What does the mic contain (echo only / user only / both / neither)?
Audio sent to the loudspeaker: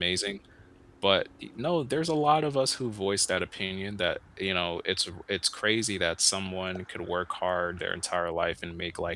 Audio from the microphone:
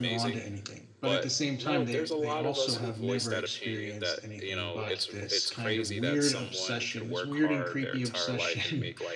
both